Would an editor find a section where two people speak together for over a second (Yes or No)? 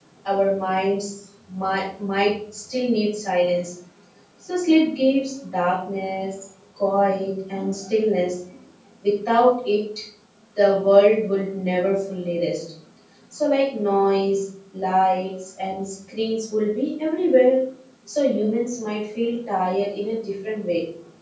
No